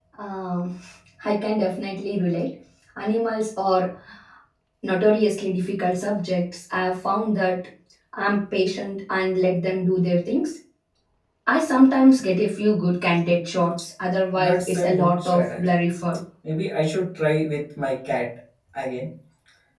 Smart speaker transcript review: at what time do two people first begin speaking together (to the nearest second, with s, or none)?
14 s